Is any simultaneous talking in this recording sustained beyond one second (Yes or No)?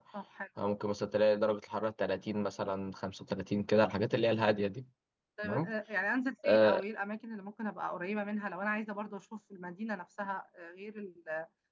No